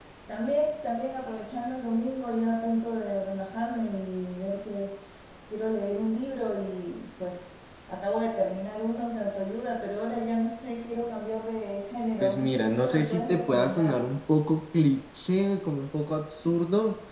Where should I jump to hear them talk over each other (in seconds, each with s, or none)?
12.2 s